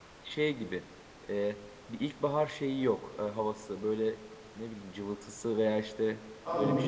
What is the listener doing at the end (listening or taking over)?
taking over